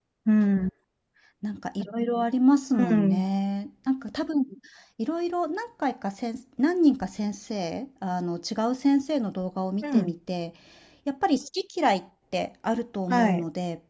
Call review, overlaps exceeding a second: none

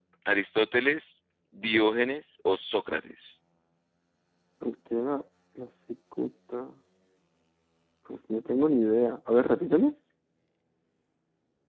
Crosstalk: none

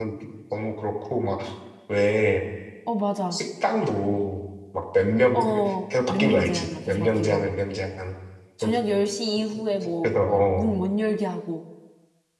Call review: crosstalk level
present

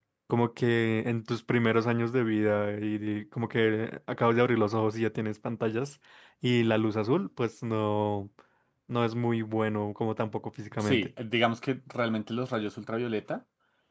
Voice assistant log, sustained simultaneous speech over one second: none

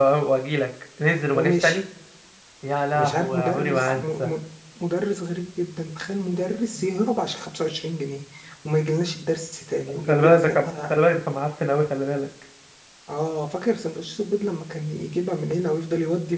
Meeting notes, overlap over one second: present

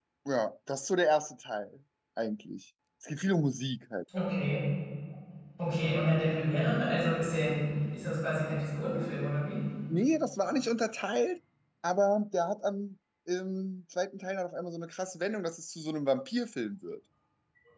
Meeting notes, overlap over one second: none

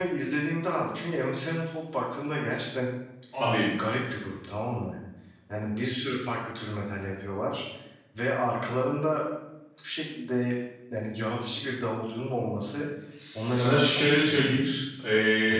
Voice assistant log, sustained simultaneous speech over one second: present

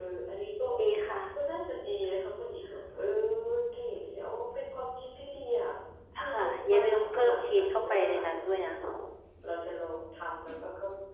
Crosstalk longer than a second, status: present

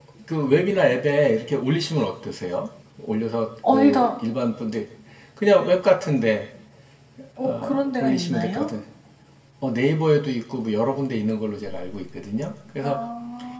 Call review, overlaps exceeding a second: present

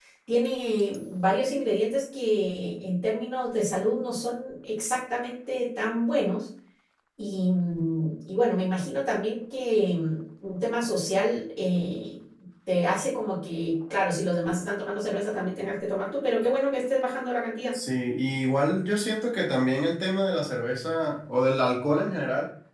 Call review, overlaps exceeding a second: none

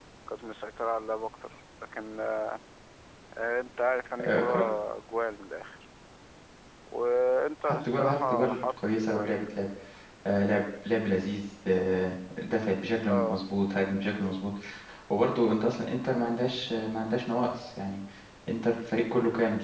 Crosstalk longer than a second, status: present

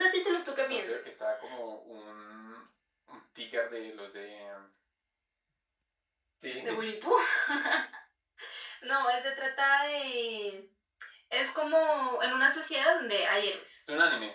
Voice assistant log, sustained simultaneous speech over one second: none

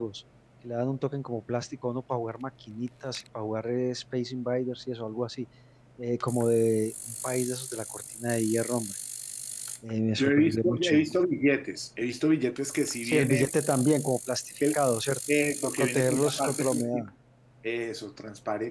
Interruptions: present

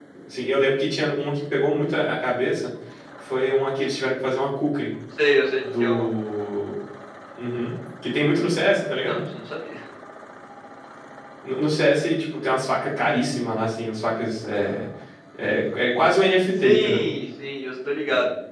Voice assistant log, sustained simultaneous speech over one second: none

